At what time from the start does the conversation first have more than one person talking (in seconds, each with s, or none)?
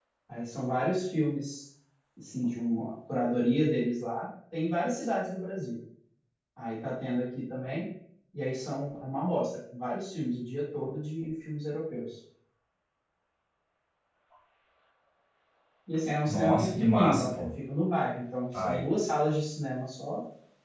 16.2 s